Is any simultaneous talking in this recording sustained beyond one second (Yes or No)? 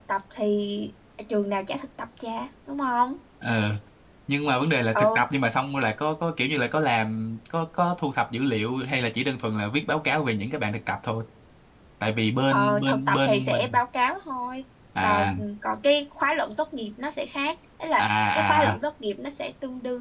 Yes